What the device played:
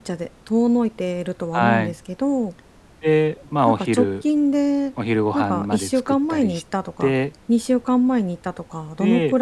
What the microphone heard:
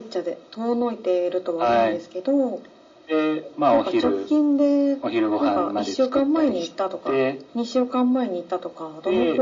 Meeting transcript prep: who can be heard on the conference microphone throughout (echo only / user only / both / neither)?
echo only